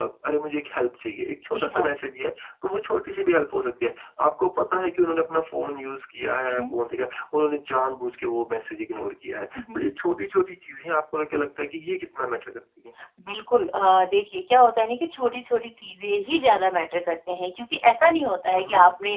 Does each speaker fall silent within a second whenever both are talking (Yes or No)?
Yes